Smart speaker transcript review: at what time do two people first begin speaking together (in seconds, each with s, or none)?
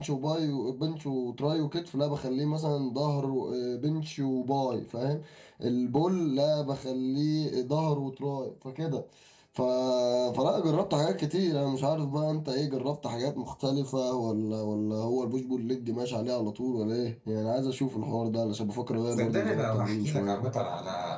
19.1 s